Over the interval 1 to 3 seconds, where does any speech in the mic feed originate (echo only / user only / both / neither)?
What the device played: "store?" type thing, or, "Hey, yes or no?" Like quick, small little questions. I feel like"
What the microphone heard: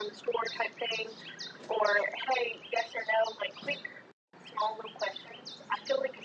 echo only